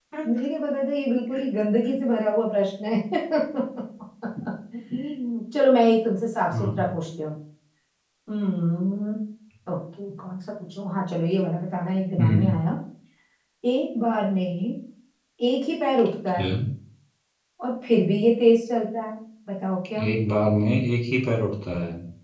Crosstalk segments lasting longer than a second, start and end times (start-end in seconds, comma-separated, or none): none